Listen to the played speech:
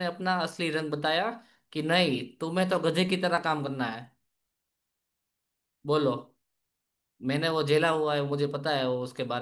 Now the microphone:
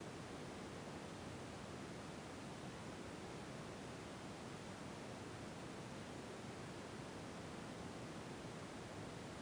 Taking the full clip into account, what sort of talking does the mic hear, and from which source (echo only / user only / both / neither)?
neither